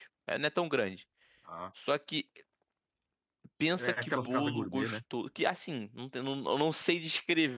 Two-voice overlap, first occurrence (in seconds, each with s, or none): 3.7 s